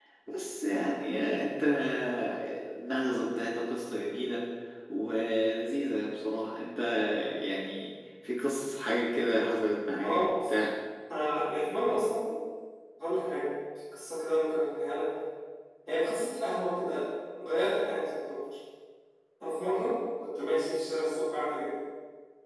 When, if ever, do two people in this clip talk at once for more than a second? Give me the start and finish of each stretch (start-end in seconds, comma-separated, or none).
none